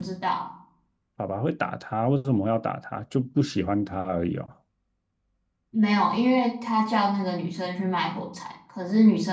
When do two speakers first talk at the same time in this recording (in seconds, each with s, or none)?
none